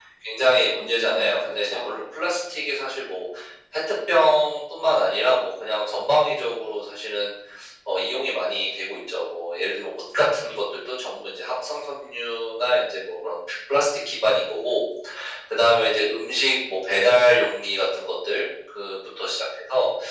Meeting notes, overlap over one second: present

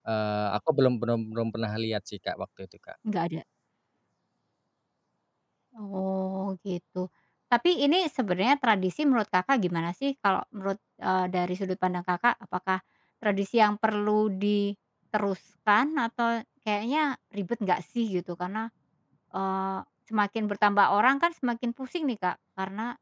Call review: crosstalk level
none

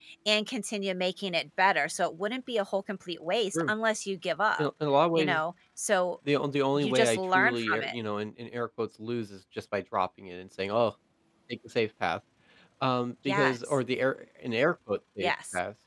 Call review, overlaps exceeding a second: present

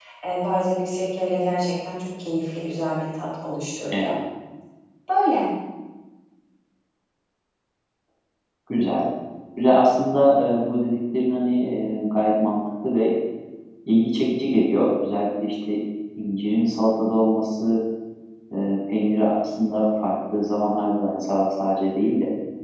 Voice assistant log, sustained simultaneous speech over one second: none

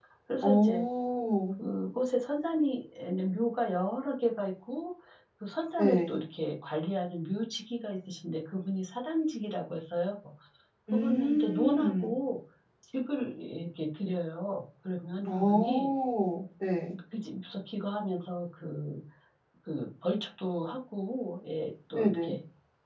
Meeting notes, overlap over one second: present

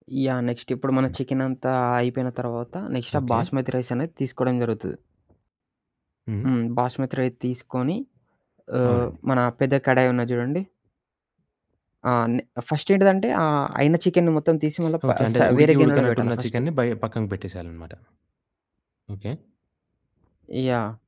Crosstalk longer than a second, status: present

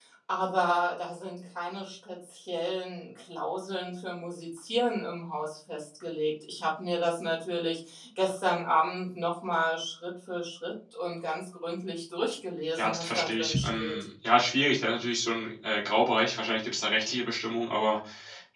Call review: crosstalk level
present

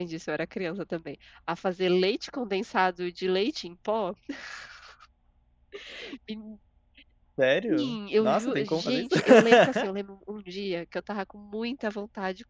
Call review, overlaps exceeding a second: present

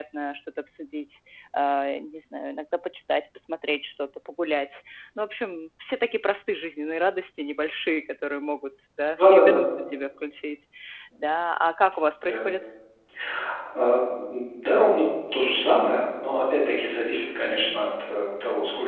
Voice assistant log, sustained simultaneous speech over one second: none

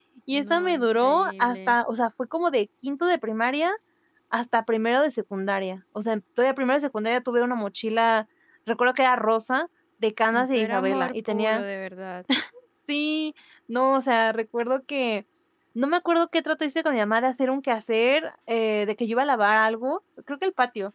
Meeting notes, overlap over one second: present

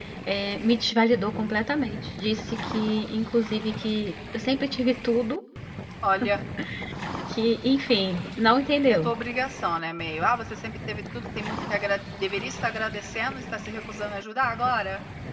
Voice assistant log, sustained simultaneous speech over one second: none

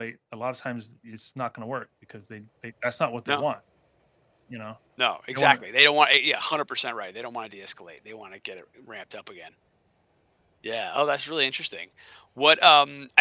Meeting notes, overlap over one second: none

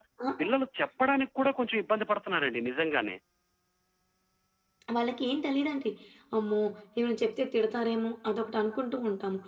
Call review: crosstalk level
none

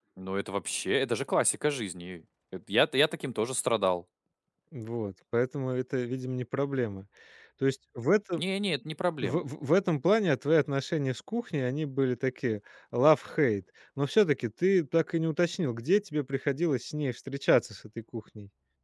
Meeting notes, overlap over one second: none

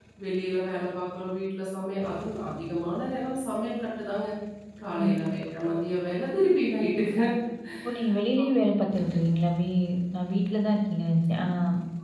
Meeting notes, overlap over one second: none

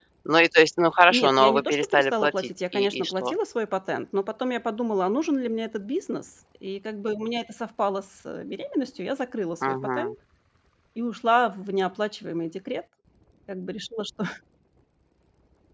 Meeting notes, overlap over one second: present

